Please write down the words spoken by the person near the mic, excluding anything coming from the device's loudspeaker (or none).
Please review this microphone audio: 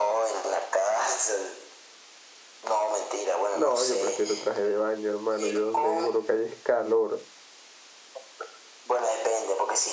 No, yo prefiero traje de baño, hermano. Yo donde vivo lo que hay es calor.